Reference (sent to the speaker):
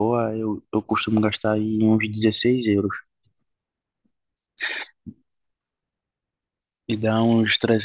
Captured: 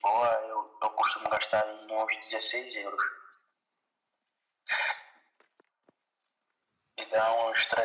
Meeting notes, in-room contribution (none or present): none